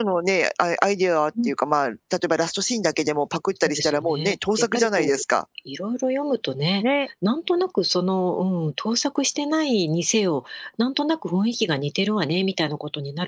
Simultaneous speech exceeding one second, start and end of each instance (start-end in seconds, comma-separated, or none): 3.6-5.2